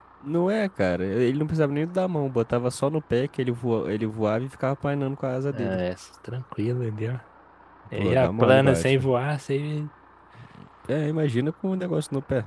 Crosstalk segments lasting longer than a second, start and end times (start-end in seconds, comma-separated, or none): 8.0-9.2